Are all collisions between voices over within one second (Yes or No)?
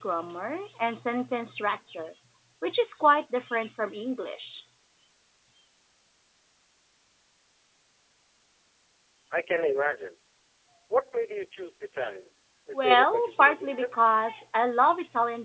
No